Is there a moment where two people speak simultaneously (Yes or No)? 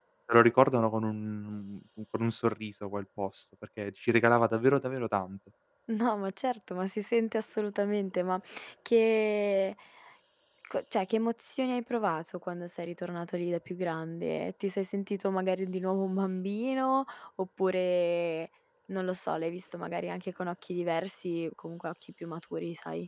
No